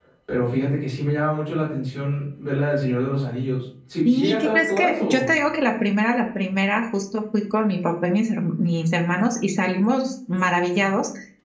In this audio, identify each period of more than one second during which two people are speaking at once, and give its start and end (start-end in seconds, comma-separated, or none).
4.0-5.3